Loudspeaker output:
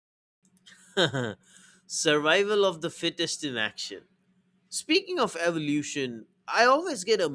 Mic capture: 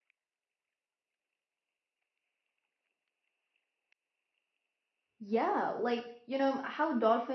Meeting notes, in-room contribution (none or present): present